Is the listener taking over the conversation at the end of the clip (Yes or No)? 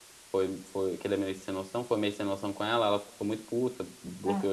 No